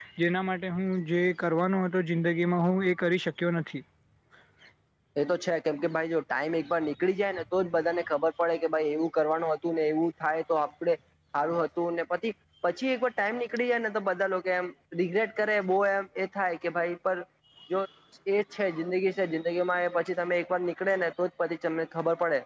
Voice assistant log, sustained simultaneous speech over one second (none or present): none